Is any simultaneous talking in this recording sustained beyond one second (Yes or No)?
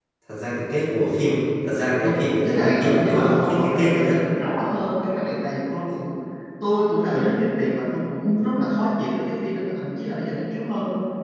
Yes